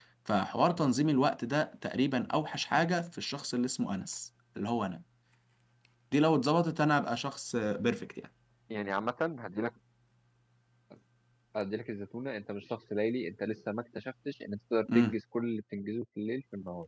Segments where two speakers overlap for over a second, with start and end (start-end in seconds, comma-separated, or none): none